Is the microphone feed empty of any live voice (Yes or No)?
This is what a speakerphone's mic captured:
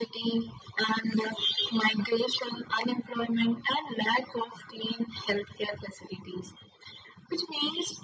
Yes